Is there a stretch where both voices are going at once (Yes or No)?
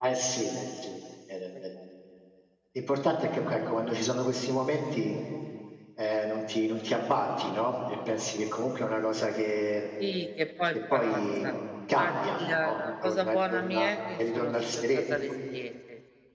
Yes